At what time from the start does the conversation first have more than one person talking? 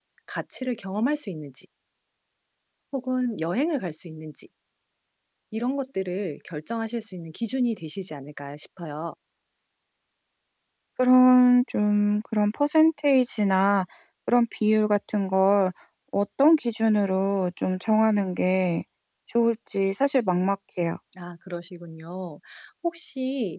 none

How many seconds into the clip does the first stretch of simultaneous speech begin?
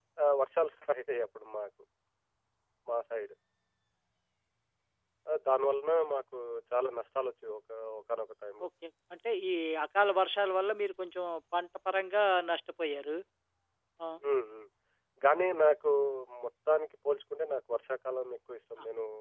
none

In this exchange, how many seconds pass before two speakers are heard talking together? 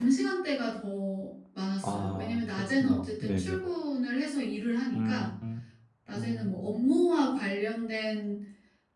1.8 s

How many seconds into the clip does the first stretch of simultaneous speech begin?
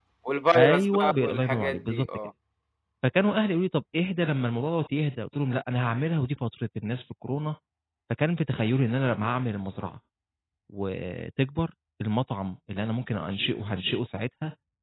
0.6 s

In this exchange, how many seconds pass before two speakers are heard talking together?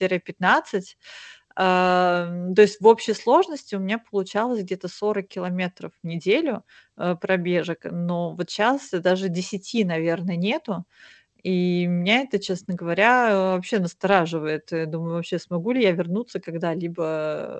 none

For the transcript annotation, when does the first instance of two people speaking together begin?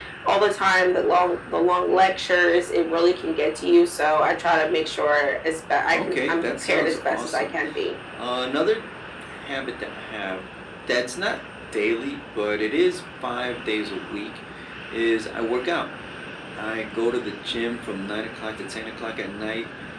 5.9 s

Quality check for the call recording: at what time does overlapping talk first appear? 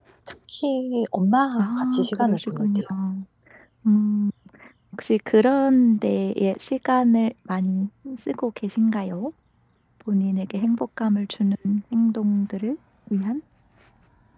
1.6 s

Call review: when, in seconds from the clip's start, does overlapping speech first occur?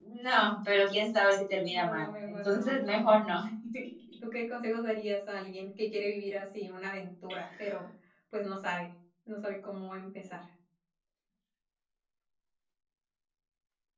1.7 s

